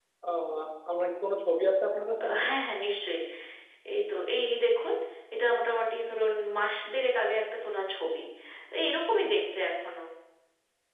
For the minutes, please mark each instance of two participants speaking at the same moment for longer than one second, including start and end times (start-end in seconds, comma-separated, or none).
none